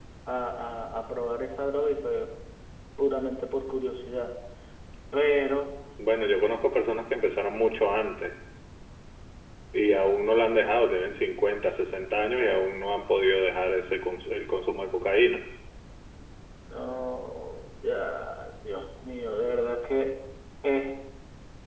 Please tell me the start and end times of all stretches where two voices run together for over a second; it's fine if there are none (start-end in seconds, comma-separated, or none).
none